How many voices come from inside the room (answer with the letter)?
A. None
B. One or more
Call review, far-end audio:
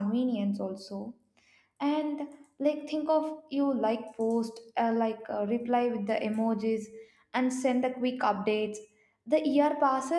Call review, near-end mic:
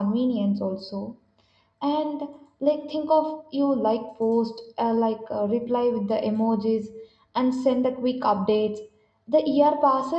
A